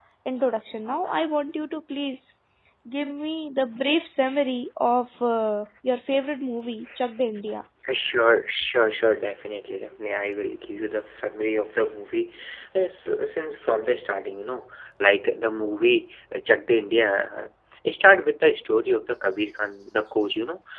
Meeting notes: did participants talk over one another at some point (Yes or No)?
No